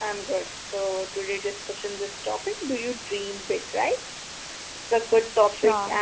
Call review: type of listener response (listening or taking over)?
listening